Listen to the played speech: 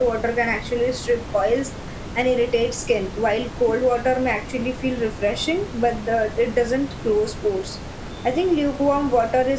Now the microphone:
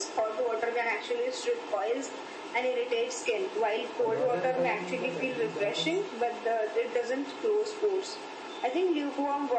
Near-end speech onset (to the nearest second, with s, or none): 4 s